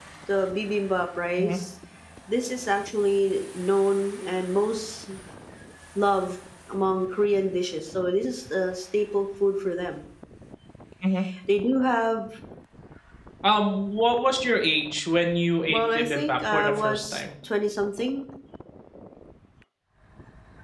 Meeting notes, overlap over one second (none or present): present